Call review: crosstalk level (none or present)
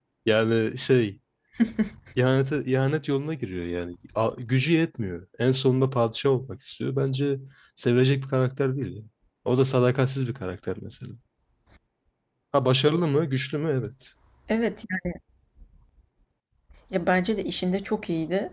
none